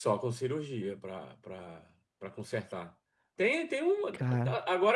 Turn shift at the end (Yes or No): No